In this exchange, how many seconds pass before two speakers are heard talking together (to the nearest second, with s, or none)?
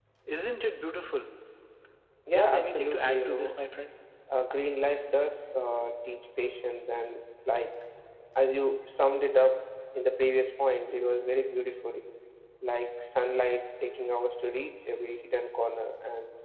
2 s